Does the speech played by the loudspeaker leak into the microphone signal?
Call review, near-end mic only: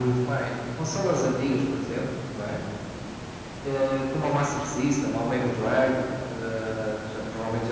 Yes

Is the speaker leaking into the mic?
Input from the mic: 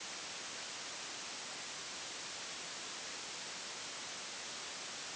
No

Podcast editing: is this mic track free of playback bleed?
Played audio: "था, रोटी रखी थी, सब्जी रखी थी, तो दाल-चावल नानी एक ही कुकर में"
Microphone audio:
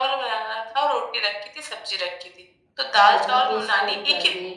No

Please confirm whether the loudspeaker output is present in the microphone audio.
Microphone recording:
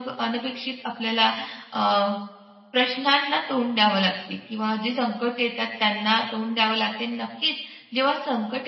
Yes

